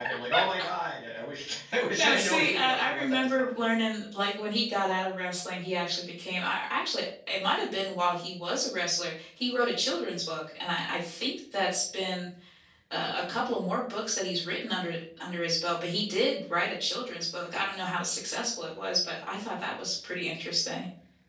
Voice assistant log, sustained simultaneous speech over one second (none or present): present